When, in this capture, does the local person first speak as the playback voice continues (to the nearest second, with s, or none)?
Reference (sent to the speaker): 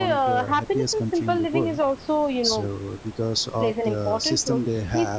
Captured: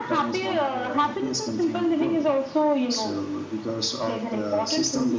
none